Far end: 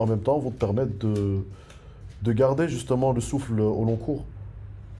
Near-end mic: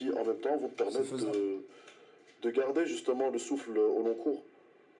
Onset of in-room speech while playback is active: 0.9 s

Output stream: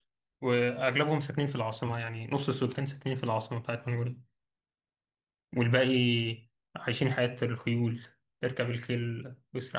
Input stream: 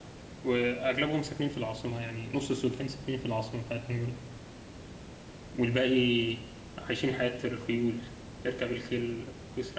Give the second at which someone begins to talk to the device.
none

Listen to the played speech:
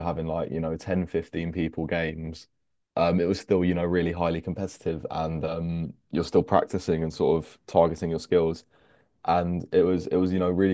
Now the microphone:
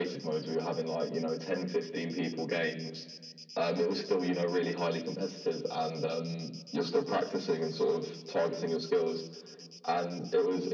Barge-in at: none

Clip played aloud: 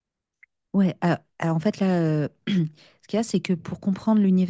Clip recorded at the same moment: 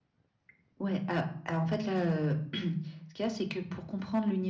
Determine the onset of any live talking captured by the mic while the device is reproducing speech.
none

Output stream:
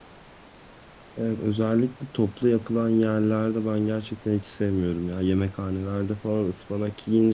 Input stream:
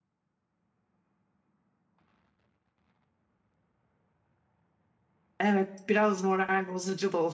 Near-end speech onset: 5.4 s

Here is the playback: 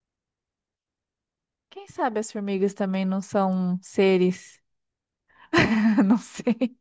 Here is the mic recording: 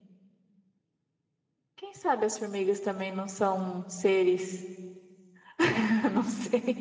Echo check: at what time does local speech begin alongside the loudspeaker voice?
none

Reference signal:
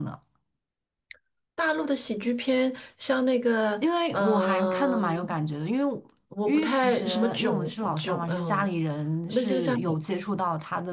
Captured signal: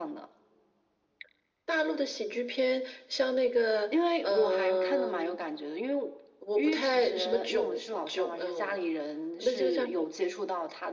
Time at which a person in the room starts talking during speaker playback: none

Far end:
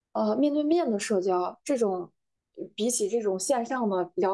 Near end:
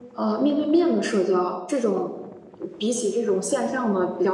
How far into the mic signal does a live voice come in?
none

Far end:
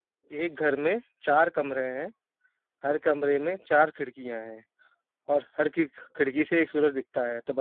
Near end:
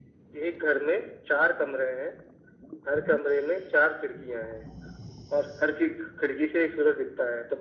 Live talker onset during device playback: none

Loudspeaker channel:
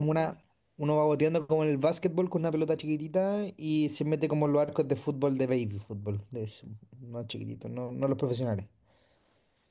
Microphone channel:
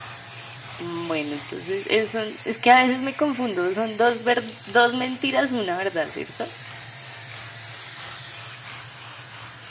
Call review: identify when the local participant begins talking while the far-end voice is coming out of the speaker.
0.8 s

